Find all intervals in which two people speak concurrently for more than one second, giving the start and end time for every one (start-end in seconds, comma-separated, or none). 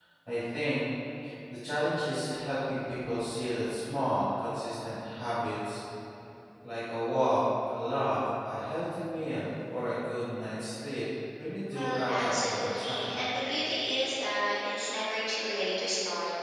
11.7-13.2